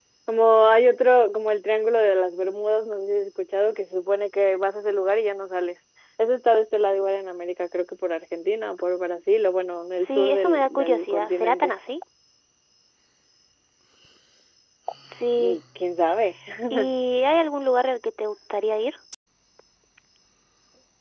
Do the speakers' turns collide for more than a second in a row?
Yes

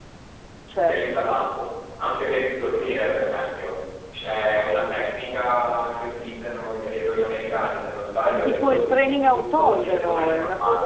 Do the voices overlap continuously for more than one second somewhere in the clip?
Yes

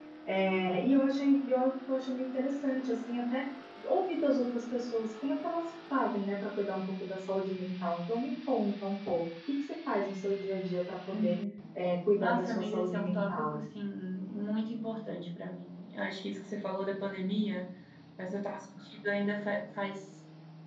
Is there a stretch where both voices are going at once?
Yes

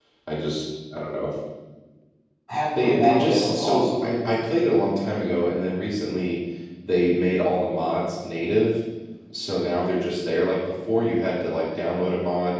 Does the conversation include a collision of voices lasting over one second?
Yes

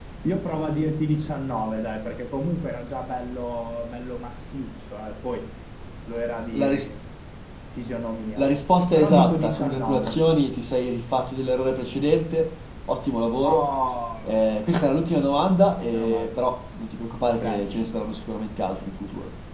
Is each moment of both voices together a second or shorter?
No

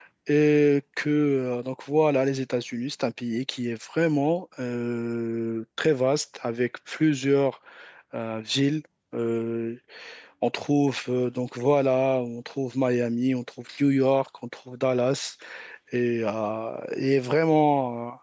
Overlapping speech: No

